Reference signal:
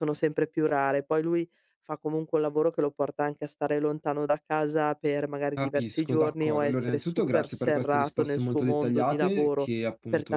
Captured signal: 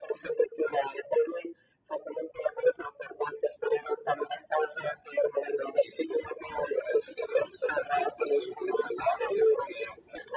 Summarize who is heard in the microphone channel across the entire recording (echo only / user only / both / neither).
echo only